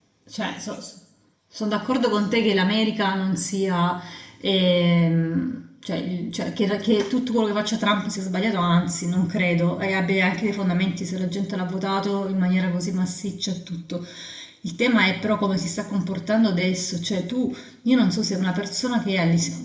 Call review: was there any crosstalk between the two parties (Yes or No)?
No